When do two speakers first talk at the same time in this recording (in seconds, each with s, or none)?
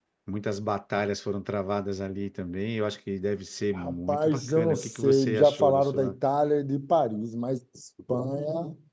3.8 s